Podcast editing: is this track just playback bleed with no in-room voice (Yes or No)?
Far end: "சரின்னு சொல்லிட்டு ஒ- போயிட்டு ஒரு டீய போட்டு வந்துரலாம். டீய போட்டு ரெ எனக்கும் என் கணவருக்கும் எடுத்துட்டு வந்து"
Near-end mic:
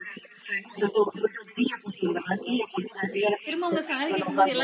No